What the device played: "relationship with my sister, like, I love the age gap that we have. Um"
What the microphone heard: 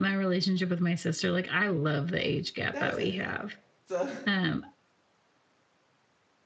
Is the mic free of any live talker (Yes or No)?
No